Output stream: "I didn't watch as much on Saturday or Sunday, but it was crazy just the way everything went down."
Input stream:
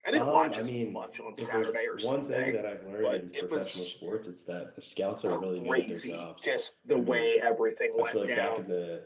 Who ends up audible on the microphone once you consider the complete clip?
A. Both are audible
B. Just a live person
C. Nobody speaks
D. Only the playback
A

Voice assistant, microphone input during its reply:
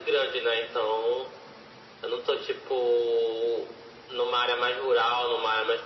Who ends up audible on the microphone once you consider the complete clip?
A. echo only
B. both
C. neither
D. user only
A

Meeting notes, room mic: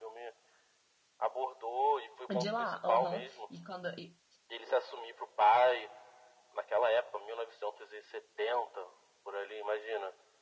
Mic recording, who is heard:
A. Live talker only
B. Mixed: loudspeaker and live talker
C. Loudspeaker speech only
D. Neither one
B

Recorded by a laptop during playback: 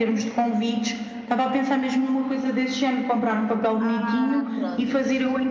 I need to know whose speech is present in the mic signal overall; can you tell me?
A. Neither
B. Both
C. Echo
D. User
B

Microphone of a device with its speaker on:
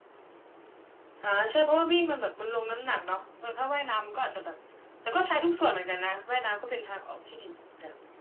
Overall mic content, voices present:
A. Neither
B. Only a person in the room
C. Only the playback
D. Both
C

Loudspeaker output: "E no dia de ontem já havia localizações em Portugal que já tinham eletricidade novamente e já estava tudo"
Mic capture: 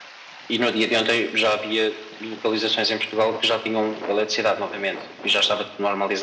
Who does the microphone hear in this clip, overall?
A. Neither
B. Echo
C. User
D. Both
B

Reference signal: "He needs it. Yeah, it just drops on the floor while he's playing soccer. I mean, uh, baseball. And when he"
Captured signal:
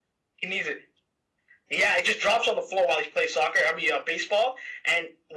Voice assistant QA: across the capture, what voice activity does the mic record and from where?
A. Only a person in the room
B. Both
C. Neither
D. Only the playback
D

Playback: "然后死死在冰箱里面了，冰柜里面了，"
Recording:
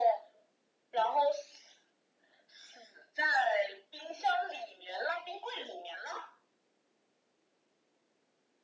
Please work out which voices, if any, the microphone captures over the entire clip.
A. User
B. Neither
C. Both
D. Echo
D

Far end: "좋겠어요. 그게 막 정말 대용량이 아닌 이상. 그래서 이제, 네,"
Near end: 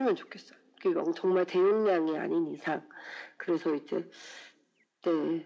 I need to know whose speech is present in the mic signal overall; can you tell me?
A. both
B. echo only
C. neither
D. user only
B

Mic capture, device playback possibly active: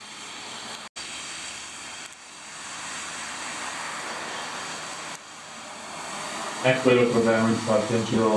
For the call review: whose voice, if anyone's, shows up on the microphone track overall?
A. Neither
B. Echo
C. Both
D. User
D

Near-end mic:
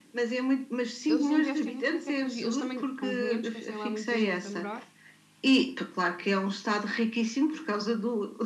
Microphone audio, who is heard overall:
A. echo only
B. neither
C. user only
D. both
D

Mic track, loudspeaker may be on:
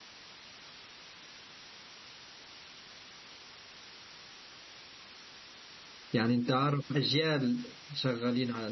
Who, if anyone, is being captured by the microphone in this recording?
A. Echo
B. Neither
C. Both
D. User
D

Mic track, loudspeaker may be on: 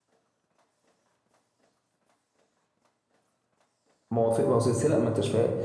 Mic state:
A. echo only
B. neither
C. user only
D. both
C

